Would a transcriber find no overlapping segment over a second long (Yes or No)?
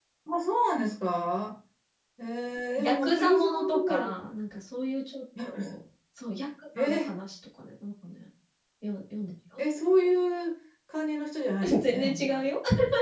No